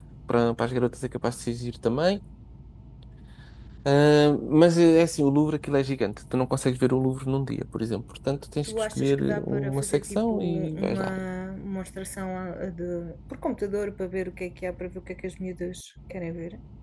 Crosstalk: present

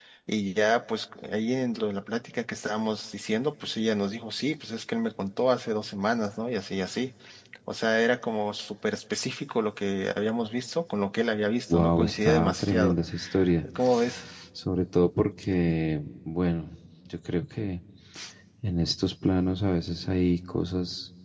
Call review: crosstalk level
present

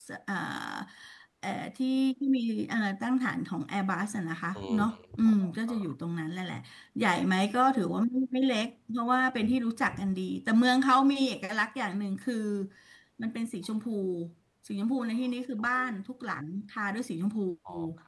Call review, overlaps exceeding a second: present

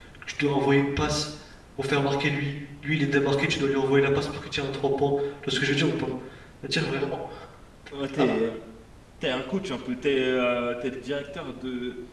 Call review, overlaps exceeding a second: none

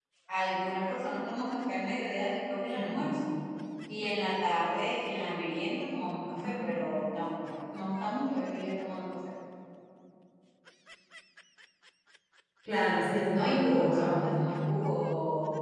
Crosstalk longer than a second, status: present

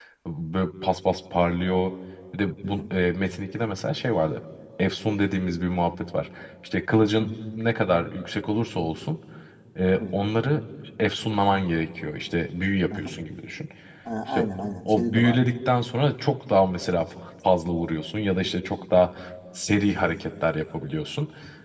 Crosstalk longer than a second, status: none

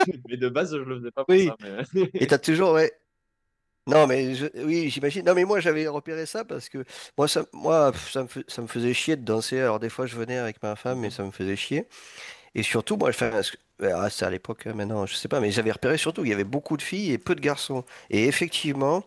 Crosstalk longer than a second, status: none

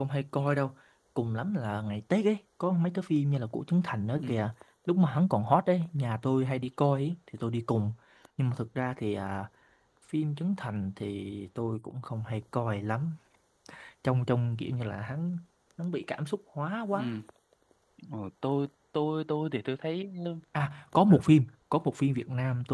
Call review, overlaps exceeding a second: none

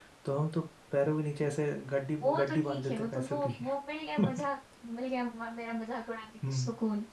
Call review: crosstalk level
present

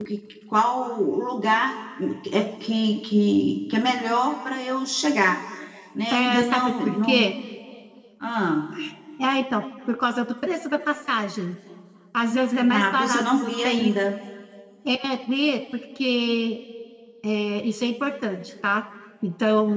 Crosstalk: present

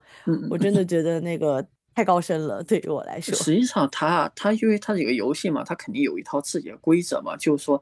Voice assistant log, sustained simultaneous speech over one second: none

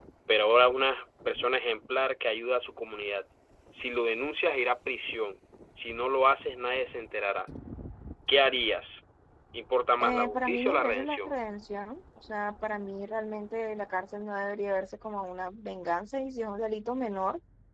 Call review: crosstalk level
present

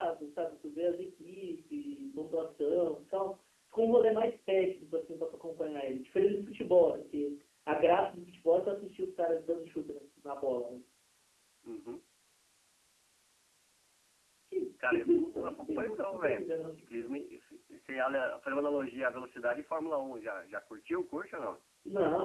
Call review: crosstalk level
present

